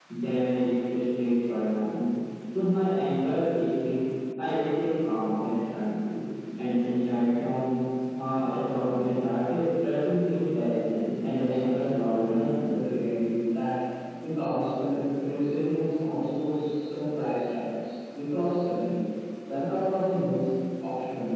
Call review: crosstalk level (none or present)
present